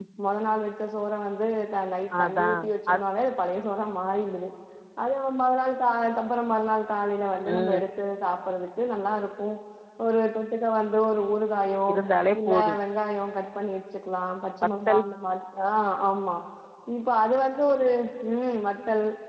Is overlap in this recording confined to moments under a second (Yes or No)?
Yes